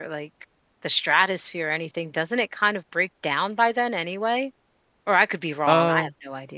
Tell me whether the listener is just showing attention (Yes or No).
No